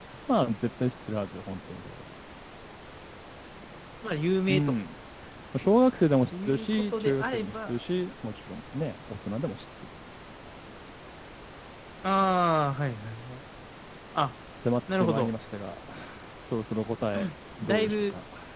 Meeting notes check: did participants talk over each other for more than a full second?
Yes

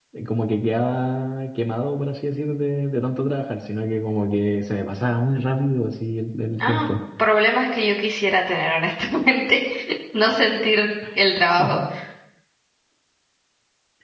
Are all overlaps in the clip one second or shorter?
Yes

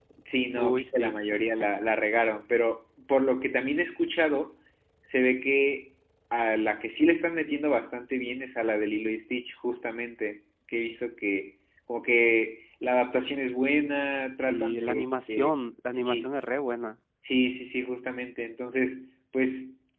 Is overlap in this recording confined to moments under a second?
No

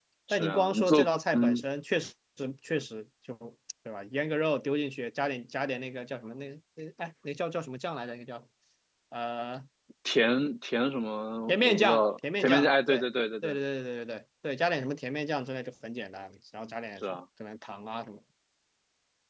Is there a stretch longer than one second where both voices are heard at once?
Yes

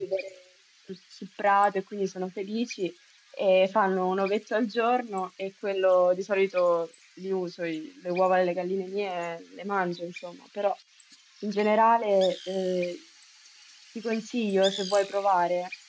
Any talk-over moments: No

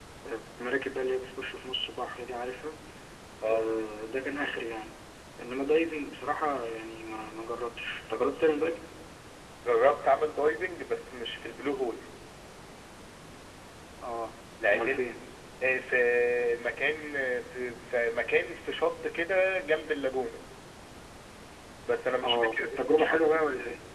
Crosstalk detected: Yes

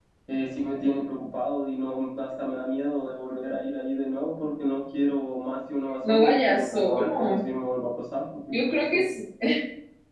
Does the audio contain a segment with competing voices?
Yes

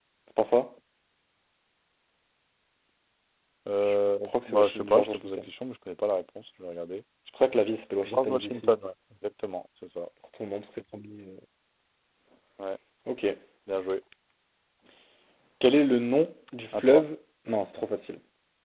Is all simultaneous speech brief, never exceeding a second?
No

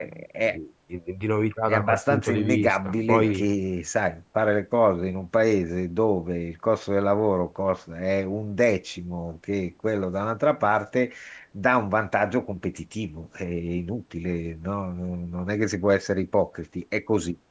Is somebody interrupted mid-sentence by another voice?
Yes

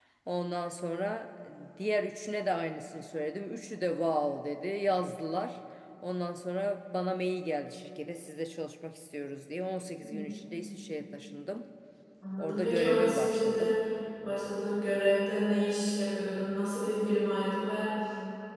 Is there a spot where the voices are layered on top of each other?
Yes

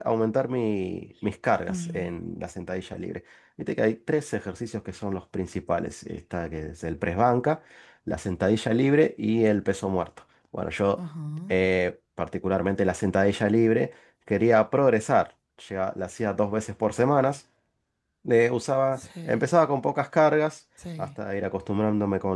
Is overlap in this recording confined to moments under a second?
Yes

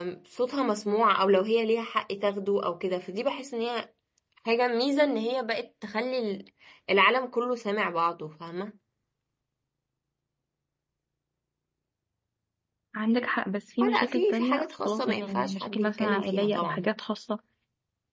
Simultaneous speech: Yes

